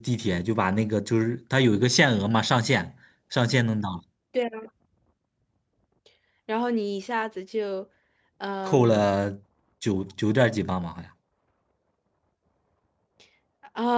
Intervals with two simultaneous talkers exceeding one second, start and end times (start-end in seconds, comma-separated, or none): none